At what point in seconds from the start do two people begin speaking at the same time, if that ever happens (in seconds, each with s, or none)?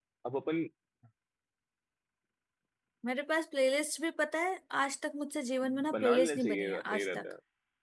5.9 s